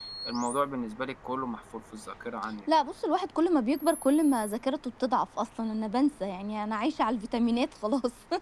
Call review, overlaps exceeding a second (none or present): none